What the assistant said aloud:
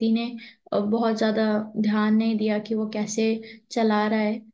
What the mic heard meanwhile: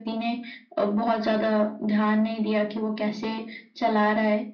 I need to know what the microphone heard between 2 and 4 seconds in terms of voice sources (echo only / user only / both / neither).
echo only